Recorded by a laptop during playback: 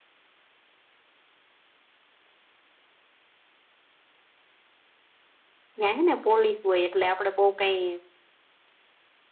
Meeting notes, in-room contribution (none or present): present